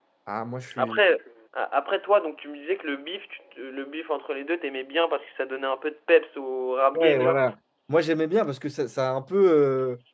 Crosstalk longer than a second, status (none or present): none